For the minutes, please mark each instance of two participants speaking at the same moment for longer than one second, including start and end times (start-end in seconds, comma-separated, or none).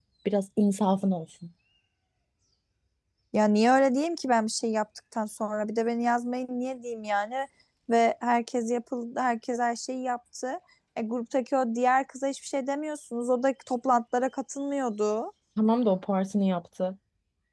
none